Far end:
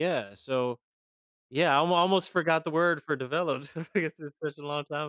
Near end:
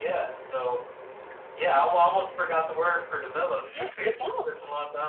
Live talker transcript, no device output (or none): Yeah, developed.